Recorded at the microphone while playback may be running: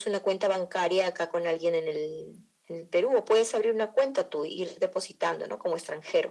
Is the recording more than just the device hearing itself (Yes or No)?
No